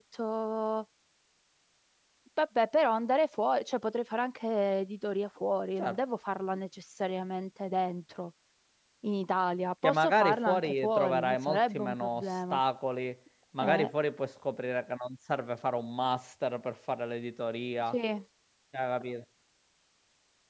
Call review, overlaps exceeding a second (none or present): present